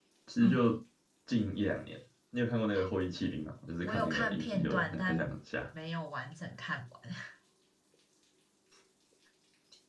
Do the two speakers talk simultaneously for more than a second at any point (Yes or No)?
Yes